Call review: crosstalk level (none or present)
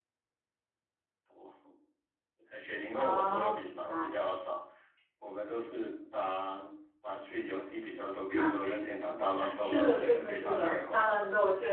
present